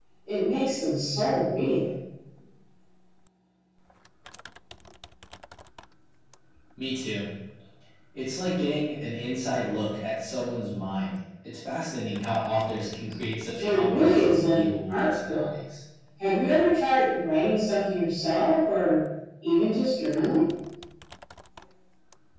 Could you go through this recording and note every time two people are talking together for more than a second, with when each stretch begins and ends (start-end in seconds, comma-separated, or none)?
13.6-15.4